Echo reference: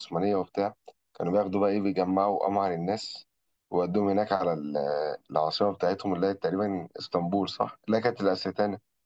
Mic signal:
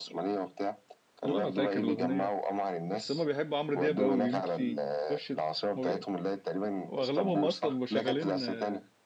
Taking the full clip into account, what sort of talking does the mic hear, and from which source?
both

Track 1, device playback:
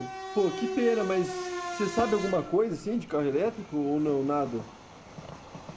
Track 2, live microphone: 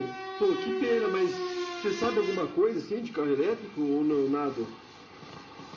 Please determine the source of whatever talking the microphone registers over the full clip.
echo only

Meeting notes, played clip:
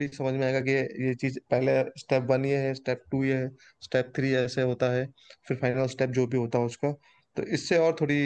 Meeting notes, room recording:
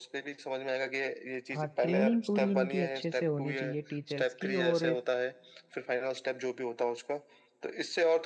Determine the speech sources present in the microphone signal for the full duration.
both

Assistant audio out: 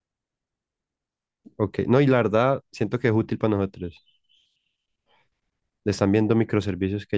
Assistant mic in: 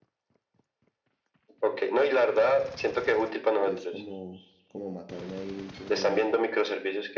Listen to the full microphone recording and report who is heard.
both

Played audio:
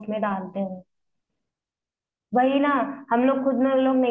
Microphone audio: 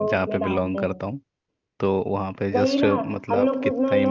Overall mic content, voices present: both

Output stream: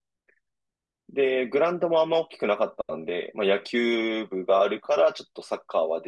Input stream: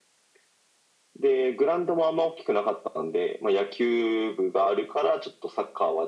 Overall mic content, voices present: echo only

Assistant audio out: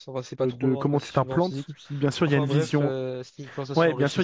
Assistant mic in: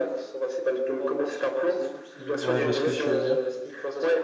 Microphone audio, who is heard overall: both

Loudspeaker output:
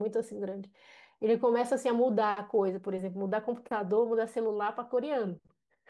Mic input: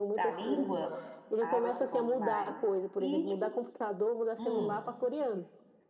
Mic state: both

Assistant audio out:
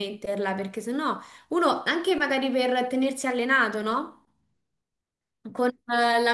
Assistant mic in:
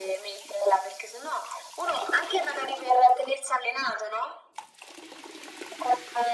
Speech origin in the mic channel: echo only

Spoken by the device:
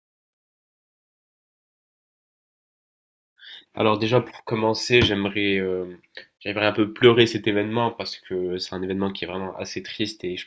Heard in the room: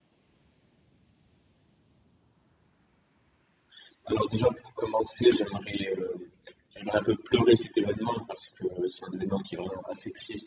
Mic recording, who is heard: echo only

